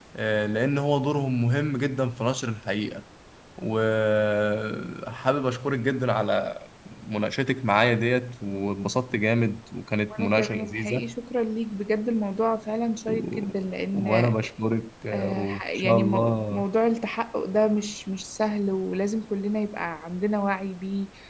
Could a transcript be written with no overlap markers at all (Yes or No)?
No